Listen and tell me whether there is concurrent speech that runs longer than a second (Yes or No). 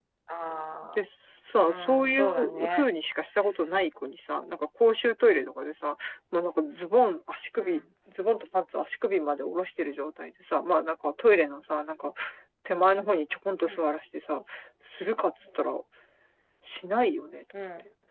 Yes